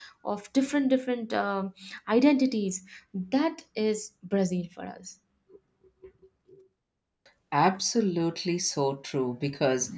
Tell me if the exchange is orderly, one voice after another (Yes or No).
Yes